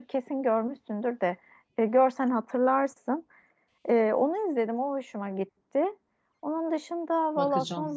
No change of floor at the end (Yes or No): Yes